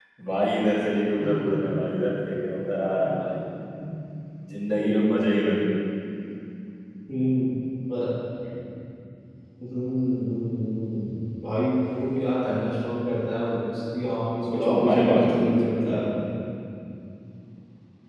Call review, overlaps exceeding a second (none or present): present